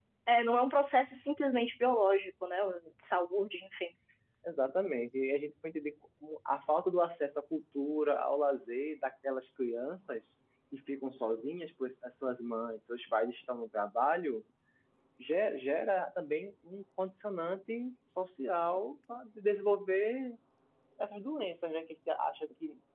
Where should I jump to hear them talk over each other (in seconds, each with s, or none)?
none